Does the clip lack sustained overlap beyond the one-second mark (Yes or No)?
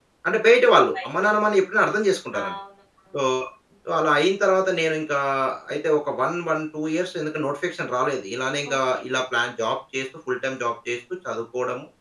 Yes